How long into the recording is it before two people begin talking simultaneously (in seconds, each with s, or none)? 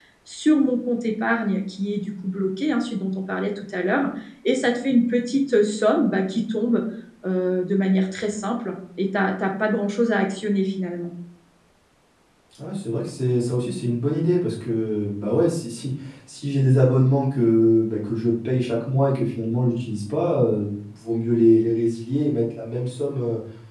none